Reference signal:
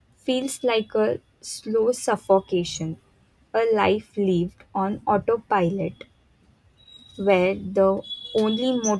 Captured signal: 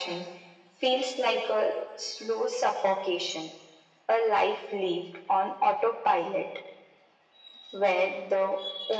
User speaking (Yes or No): No